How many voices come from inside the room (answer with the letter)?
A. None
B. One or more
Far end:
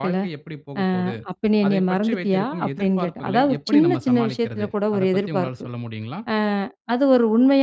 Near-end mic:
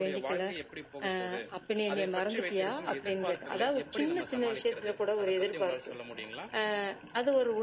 A